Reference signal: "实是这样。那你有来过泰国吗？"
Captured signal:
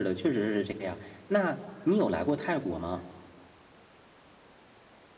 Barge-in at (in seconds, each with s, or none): none